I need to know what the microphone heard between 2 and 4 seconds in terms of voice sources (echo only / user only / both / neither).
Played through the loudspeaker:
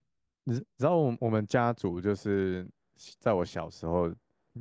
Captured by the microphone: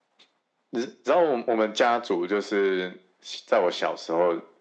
echo only